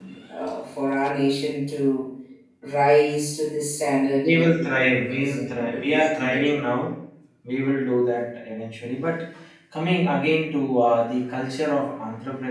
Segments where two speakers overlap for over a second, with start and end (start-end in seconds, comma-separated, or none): 4.2-6.5